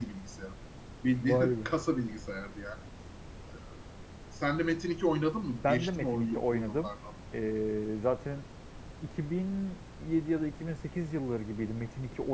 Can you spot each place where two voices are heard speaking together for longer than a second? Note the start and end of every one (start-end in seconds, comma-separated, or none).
5.6-6.9